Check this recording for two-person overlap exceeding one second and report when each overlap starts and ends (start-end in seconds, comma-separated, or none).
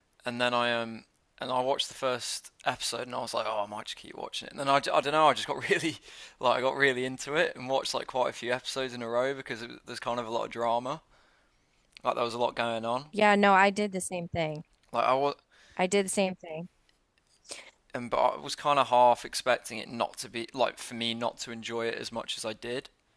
none